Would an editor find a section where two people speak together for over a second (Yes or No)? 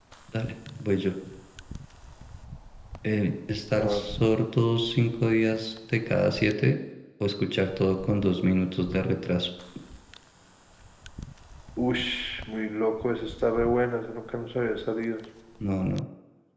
No